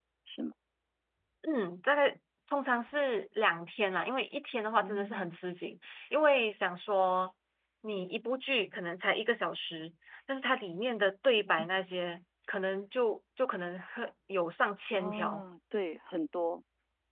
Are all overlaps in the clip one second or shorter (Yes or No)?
Yes